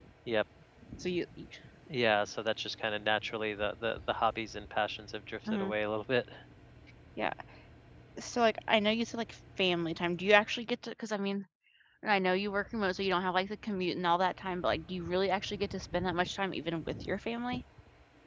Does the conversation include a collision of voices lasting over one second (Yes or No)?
No